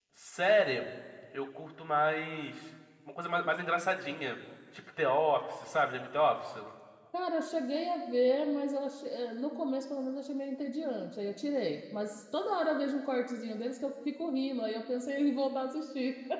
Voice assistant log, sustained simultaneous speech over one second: none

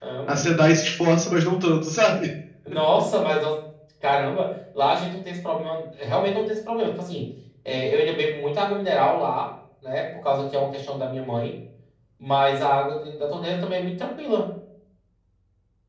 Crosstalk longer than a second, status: none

